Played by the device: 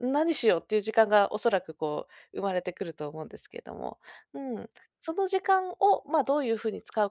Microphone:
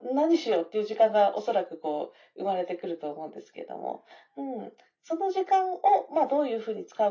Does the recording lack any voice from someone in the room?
Yes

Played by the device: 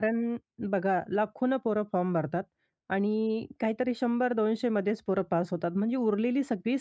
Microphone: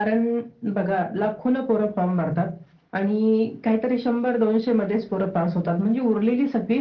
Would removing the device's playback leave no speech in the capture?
Yes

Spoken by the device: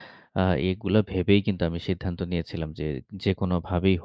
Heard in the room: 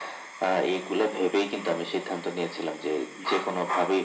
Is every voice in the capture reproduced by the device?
Yes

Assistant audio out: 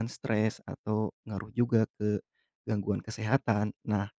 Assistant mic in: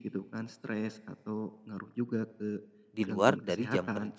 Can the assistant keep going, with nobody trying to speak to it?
No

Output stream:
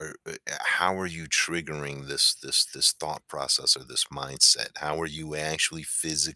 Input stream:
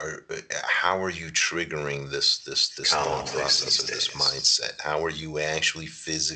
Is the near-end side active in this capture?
Yes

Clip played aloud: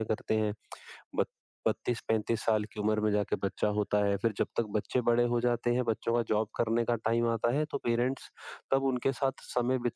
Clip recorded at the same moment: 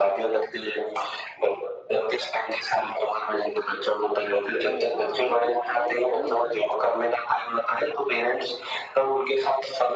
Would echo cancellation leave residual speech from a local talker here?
Yes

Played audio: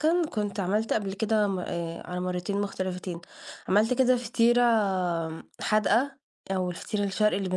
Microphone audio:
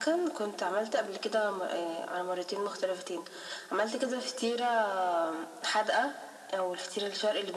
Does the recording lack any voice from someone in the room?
Yes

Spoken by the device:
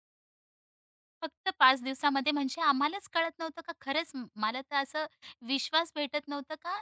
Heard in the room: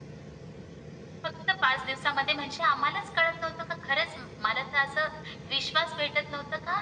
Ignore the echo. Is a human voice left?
No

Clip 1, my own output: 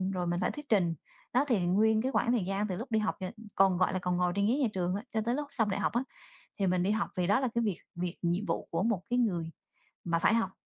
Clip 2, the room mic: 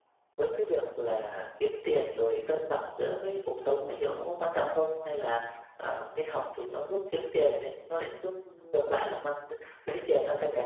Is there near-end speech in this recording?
Yes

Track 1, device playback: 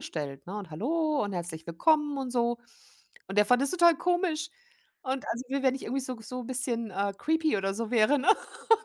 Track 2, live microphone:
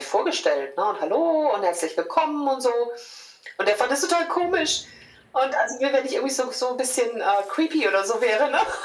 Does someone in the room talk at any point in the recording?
No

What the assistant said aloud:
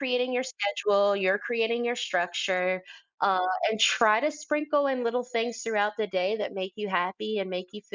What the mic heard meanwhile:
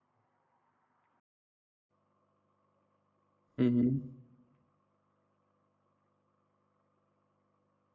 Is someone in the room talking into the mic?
Yes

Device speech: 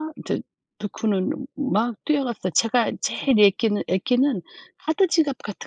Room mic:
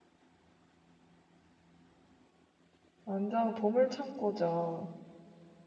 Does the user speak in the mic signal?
Yes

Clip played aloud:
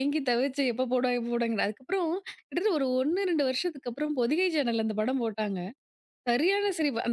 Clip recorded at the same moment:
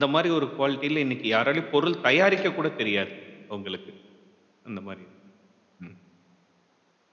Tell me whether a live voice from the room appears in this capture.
Yes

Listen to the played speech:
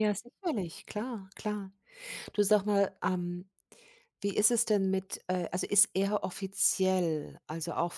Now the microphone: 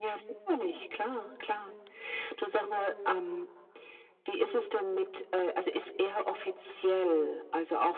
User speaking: No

